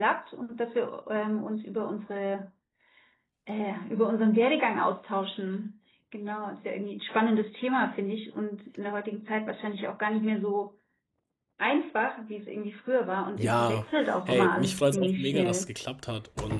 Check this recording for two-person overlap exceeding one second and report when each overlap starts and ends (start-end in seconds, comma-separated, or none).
14.3-15.7